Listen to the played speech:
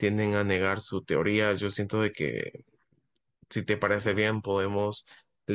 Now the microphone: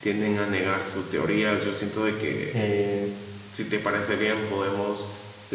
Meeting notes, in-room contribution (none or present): present